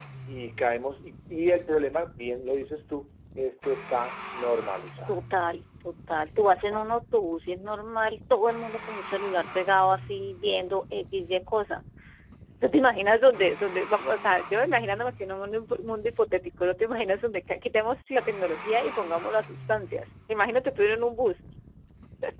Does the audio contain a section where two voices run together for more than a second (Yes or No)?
No